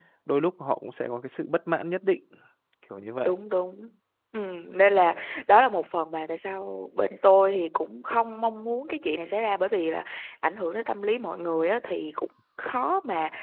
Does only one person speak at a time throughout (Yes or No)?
Yes